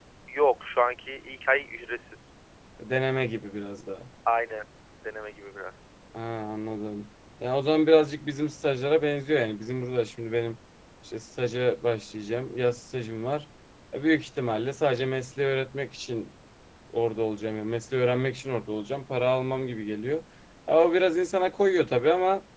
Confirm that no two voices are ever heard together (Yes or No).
Yes